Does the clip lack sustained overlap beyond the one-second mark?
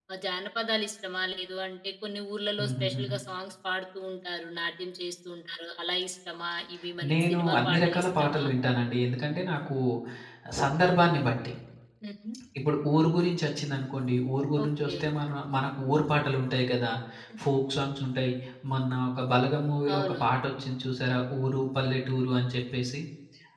No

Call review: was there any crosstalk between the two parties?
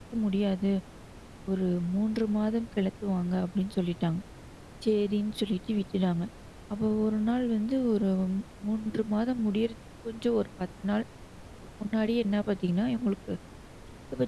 No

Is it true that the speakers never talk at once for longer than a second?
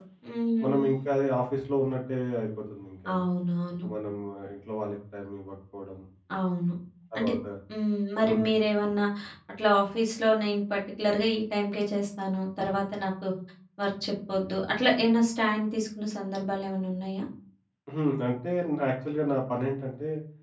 Yes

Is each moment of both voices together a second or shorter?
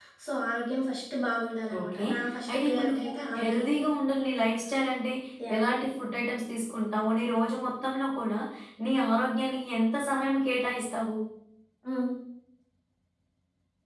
No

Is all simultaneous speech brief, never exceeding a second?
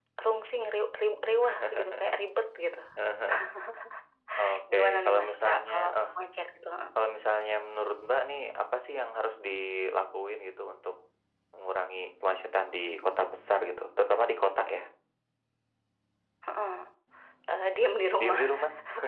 No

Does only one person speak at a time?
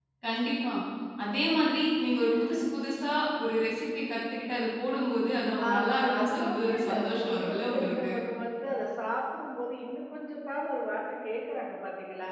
No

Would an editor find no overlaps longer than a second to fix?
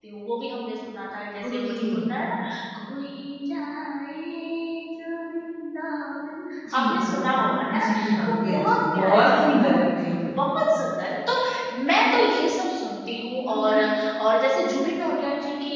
No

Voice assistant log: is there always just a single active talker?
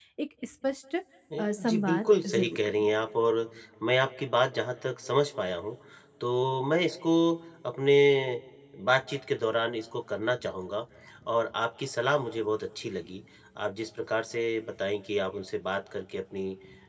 No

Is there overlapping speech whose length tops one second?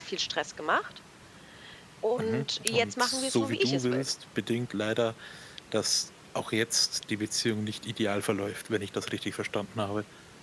Yes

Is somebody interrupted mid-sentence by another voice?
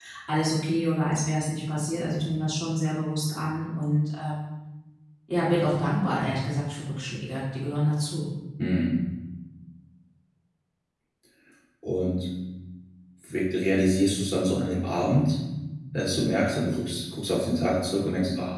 No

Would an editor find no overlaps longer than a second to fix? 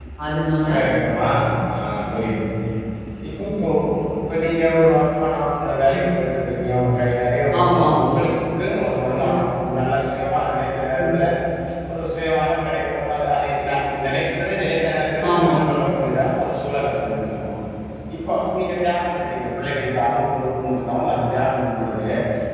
Yes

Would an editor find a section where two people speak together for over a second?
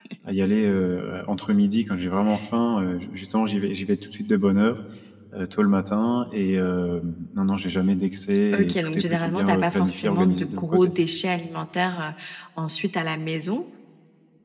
Yes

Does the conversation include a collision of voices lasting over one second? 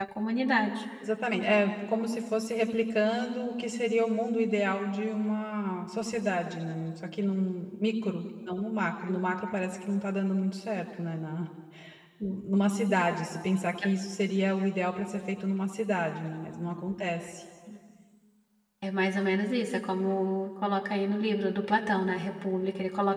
No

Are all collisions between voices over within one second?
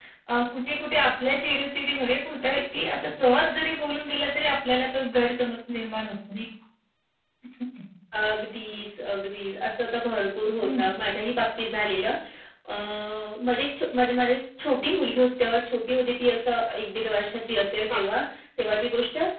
Yes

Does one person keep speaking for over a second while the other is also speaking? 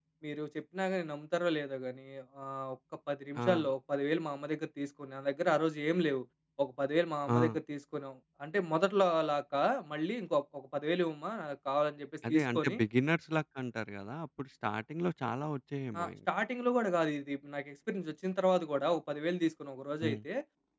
No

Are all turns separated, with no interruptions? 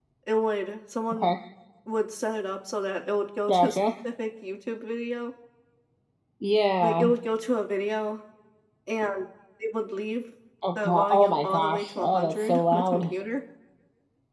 No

